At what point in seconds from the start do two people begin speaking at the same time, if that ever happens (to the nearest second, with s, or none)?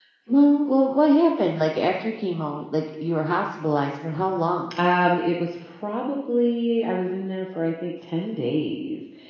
none